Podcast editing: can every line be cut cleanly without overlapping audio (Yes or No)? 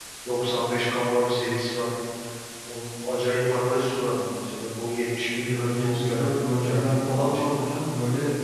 No